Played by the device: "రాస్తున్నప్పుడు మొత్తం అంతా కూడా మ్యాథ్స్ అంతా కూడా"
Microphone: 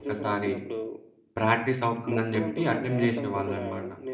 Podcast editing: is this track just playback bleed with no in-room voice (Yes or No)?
No